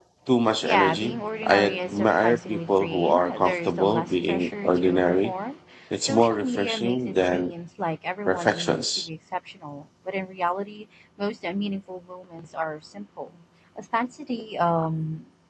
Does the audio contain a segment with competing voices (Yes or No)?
Yes